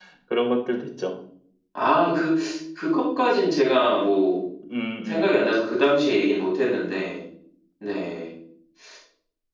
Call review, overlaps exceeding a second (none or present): none